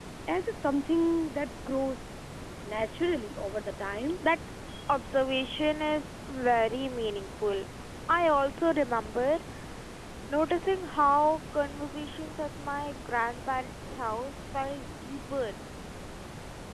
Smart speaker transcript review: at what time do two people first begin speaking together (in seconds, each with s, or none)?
none